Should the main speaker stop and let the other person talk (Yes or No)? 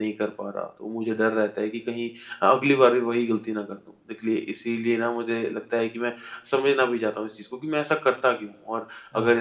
No